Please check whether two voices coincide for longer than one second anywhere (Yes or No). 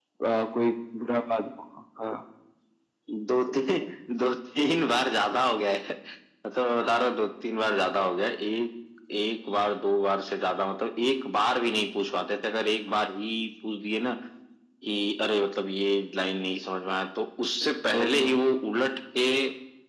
No